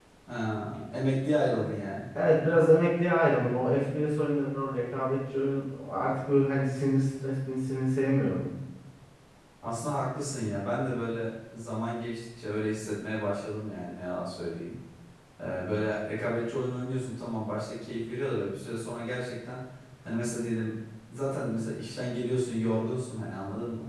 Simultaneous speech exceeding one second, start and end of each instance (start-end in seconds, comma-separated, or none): none